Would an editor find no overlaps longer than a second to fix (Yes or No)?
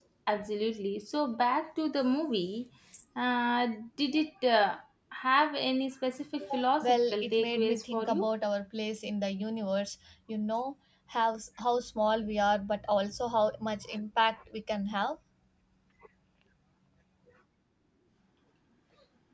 No